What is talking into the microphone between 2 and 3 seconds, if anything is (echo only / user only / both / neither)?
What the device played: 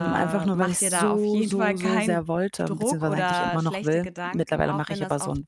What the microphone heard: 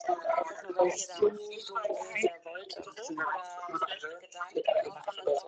echo only